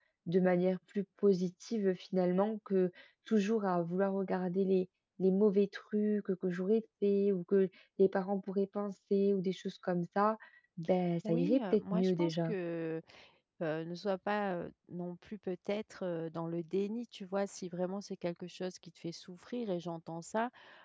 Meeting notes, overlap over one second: present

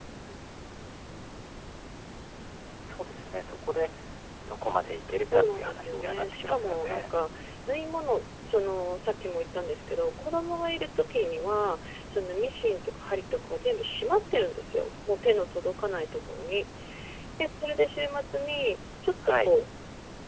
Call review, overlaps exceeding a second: present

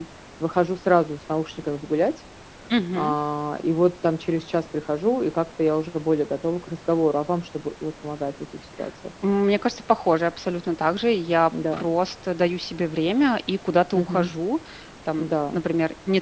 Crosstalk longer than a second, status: none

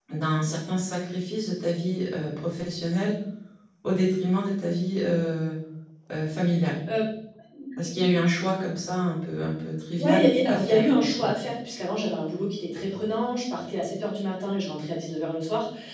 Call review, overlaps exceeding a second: present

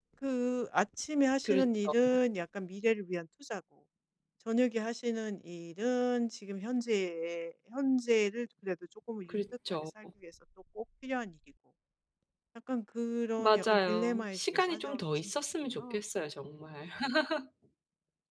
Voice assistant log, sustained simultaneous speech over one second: present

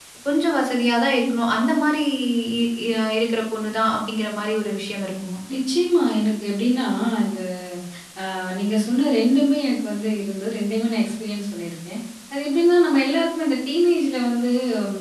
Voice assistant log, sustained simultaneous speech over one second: none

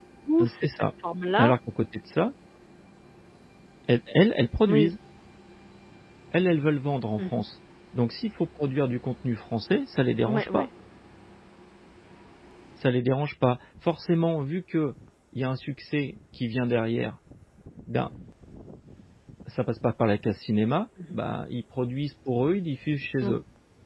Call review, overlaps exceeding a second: none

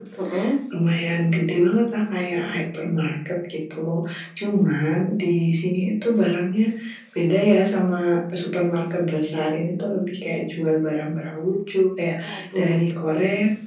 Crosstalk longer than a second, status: none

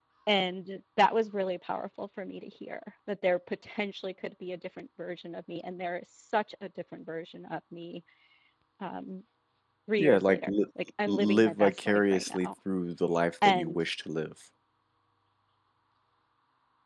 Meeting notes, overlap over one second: present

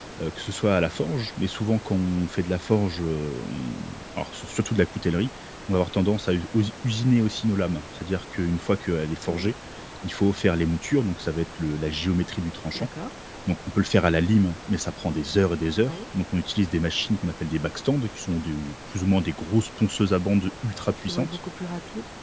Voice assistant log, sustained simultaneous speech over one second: none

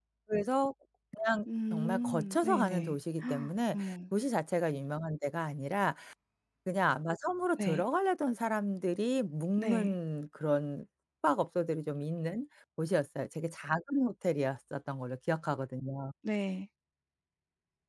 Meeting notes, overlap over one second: present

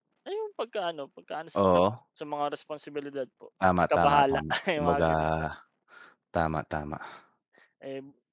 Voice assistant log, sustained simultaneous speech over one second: present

